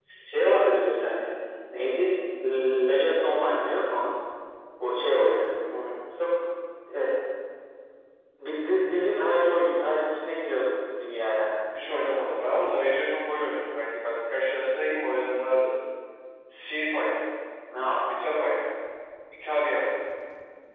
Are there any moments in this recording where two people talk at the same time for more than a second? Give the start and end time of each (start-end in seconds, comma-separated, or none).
none